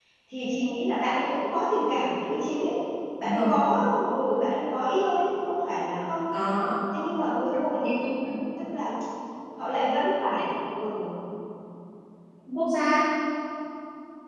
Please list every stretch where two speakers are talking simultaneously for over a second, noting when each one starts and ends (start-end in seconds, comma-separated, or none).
none